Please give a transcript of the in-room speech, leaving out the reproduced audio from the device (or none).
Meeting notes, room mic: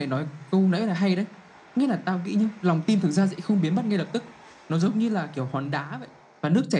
none